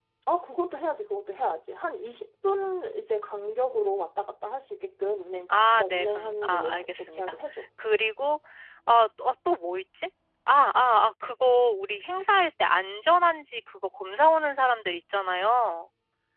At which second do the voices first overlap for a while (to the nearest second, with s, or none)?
5 s